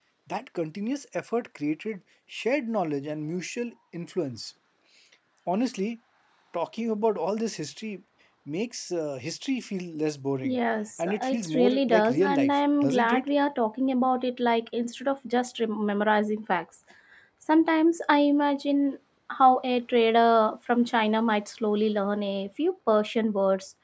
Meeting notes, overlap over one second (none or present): present